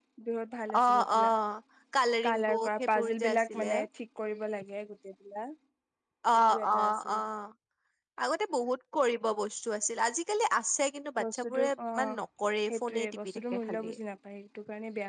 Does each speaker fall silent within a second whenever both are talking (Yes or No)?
No